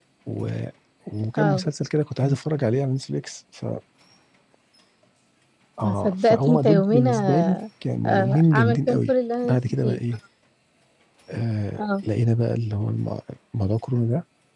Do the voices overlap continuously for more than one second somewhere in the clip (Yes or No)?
Yes